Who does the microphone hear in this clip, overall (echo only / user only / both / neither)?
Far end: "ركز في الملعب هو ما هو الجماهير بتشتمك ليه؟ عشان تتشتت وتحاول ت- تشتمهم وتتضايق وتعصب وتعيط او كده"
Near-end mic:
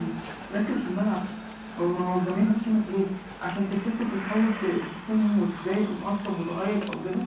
echo only